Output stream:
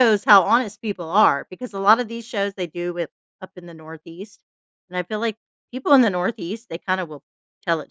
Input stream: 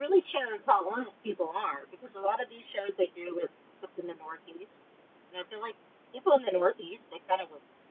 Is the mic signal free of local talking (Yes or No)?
Yes